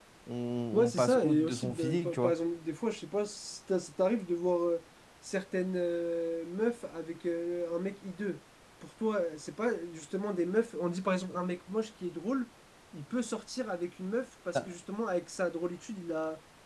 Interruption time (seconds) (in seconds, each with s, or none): 0.7 s